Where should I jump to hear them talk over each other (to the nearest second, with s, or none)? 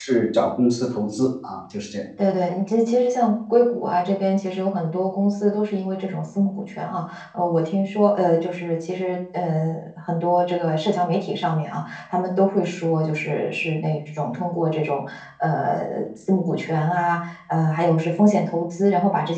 none